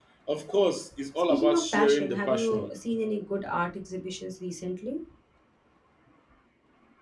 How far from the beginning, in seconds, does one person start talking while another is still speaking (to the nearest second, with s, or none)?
1 s